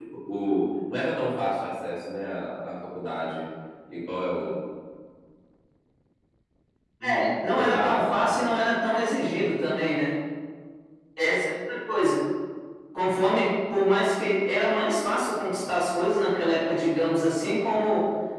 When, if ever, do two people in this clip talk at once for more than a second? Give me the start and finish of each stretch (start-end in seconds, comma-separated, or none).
7.0-8.6